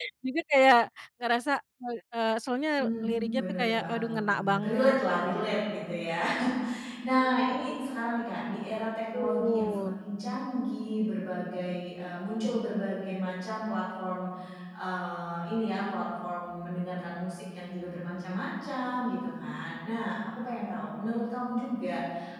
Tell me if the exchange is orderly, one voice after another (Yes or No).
No